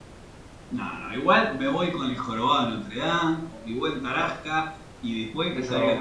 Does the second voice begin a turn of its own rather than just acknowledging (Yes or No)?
No